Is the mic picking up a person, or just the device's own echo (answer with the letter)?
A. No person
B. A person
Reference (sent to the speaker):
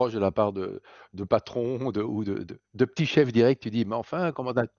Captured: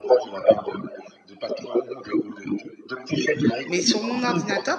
B